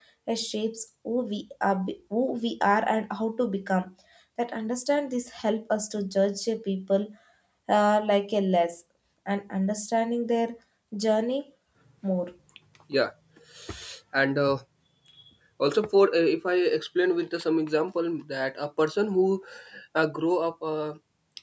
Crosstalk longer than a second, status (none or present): none